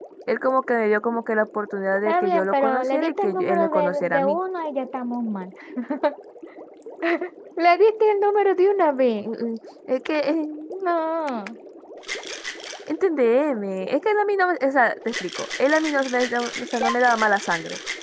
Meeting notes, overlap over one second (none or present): present